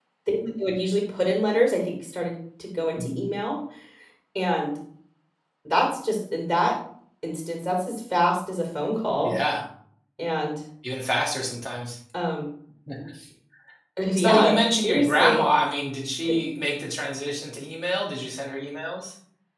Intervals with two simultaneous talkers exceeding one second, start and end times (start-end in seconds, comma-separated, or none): 14.2-15.4